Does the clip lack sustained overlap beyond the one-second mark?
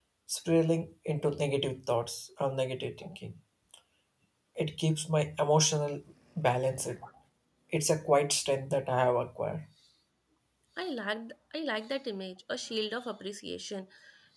Yes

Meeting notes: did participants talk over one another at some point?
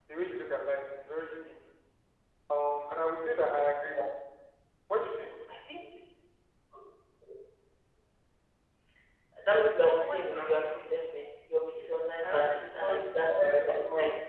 Yes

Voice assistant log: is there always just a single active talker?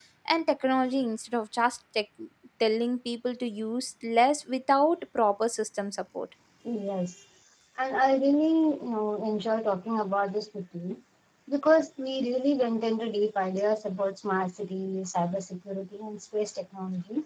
Yes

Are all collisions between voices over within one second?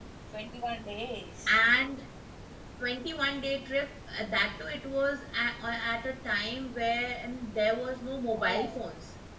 Yes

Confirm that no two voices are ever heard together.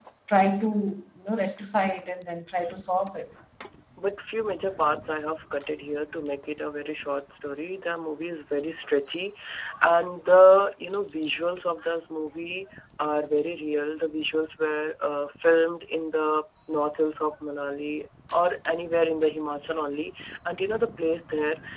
Yes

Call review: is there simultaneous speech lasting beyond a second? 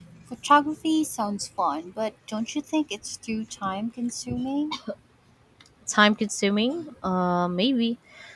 No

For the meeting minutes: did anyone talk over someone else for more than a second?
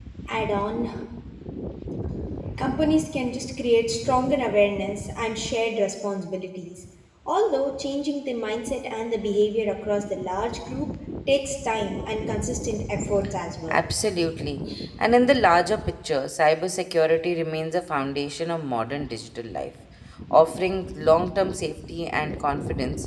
No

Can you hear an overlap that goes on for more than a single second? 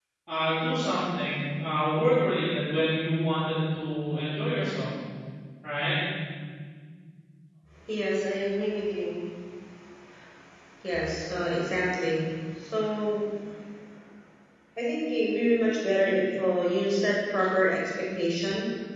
No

